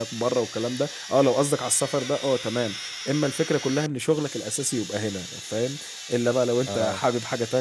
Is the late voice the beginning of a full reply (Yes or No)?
No